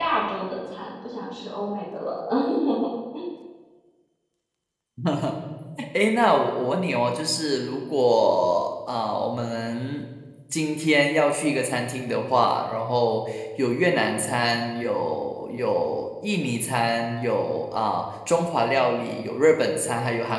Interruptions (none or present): none